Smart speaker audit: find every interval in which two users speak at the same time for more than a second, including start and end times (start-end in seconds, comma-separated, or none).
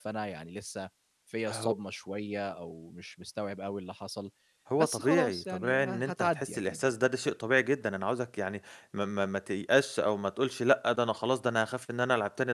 4.8-6.8